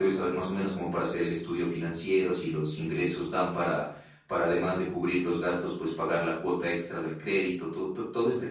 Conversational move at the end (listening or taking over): taking over